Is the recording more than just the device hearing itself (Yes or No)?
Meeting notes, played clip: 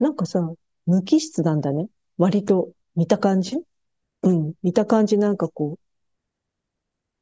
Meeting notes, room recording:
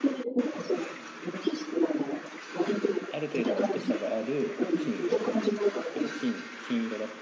Yes